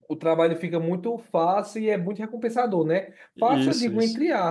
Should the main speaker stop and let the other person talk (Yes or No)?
No